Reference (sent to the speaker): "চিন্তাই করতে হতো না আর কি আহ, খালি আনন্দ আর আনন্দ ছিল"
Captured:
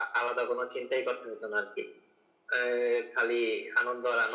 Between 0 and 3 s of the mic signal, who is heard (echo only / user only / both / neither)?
echo only